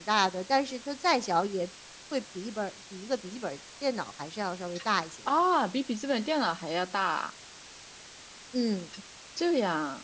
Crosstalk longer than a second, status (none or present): none